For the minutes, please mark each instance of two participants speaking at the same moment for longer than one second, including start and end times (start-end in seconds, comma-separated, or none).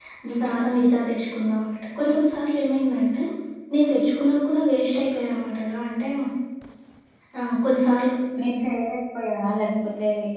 none